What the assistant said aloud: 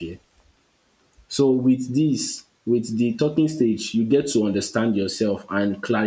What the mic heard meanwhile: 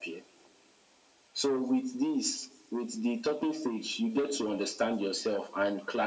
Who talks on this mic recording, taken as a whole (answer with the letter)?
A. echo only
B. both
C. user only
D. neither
A